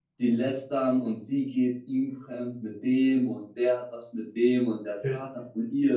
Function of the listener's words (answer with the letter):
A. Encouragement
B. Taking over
A